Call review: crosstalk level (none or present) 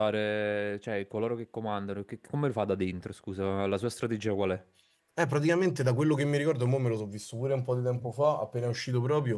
none